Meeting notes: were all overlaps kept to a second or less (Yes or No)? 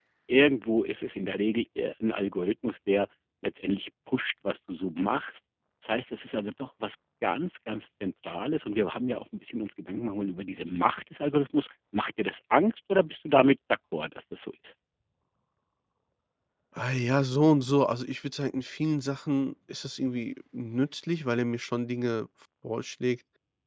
Yes